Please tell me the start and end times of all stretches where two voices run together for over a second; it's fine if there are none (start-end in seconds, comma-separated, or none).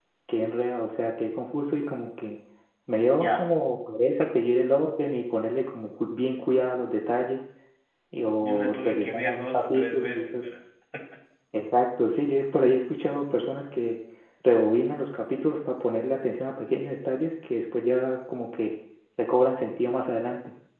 8.4-10.4